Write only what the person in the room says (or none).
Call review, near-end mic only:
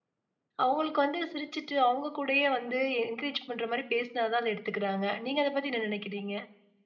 அவங்களுக்கு வந்து சிரிச்சுட்டு, அவங்க கூடயே வந்து என்கரேஜ் பண்ற மாரி பேசினா தான் அத எடுத்துக்கிறாங்க. நீங்க அத பத்தி என்ன நினைக்கிறீங்க?